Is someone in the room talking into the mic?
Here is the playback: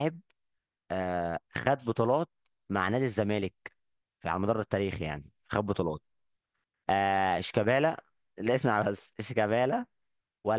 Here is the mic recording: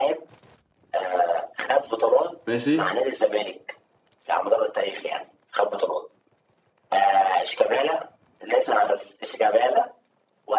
Yes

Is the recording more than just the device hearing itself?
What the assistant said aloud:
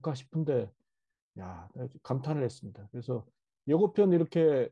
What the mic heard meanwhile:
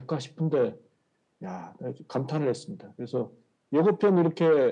No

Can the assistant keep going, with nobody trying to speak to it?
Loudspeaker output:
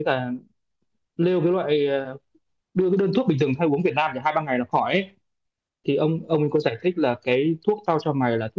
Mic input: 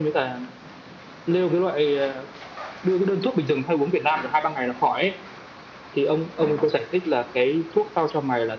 Yes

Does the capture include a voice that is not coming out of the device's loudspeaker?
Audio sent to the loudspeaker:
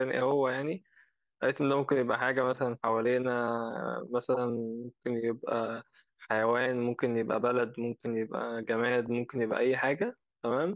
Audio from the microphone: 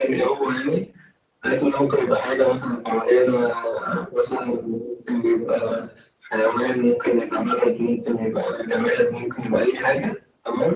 No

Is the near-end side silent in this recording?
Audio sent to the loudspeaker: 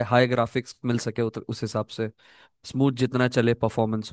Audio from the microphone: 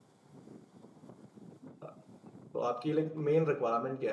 No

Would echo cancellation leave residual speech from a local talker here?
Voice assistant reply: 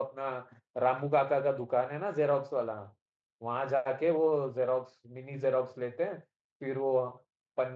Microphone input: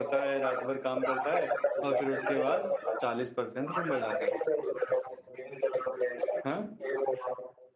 Yes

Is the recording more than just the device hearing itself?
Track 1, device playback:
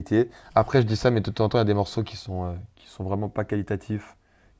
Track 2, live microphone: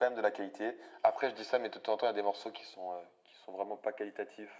No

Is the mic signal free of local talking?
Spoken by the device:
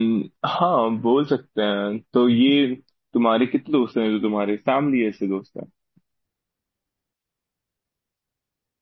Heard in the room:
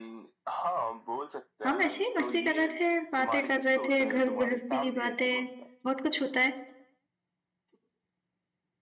No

